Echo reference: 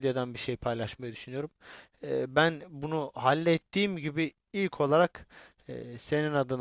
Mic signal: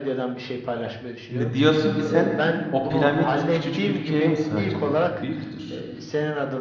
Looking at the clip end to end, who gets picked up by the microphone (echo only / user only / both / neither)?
both